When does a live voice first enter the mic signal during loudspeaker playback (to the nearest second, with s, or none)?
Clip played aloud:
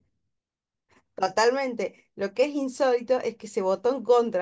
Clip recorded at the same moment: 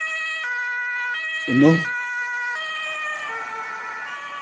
1 s